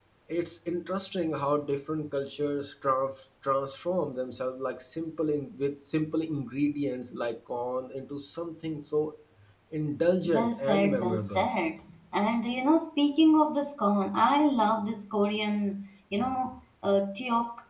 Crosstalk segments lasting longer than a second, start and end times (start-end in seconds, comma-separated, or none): 10.2-11.5